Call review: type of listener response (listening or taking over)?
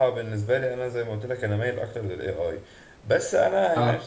listening